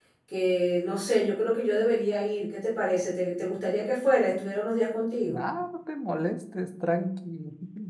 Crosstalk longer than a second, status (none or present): none